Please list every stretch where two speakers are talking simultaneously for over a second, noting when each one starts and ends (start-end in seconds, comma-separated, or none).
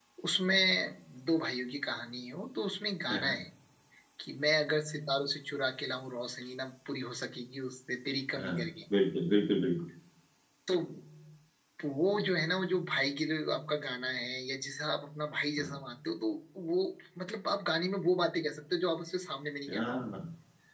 none